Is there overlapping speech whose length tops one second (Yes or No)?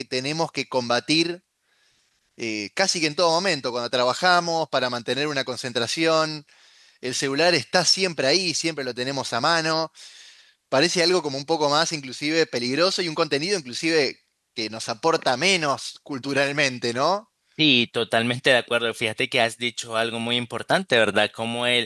No